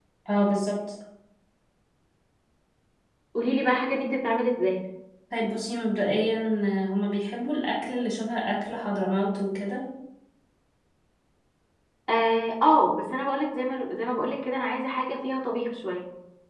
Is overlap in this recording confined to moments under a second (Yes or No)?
Yes